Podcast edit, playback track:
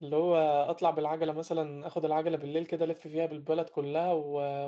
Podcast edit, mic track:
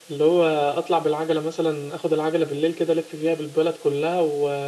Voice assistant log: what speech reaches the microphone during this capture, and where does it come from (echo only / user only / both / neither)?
echo only